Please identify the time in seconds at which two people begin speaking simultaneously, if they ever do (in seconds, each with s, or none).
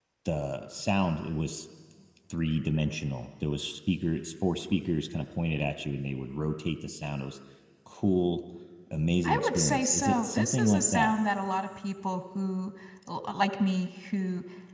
9.2 s